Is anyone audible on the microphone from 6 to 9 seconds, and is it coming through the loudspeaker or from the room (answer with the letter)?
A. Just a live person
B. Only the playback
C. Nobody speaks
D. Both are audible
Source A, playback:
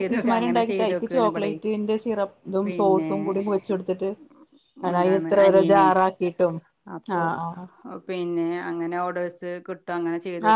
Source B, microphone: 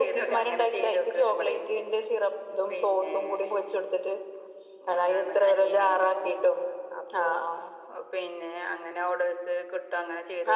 B